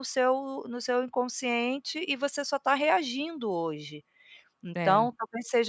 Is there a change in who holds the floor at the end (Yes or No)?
No